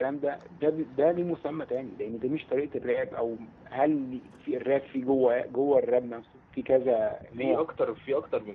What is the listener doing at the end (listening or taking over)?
taking over